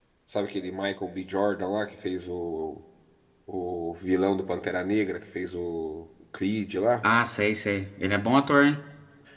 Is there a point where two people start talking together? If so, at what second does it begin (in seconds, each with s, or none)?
none